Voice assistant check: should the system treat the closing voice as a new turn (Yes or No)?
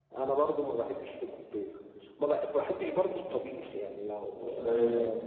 No